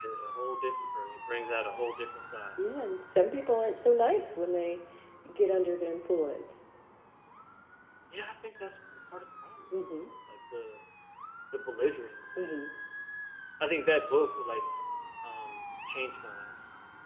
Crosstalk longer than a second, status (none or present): none